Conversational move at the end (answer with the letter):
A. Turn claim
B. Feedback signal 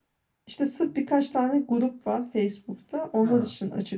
B